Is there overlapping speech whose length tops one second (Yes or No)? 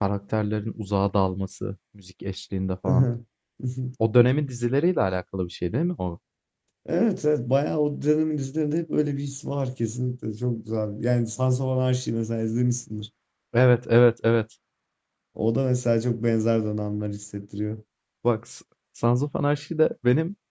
No